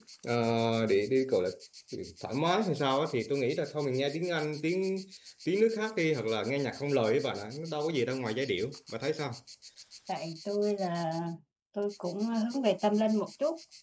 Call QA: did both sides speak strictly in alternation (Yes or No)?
Yes